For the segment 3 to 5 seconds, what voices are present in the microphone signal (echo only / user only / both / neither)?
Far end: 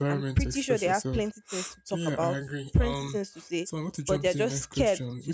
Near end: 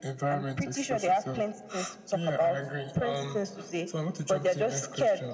echo only